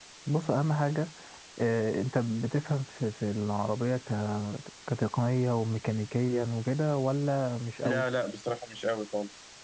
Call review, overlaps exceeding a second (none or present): none